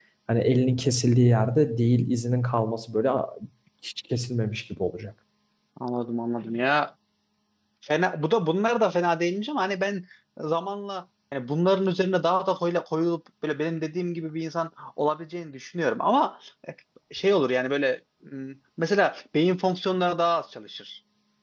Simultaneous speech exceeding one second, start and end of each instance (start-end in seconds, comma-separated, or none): none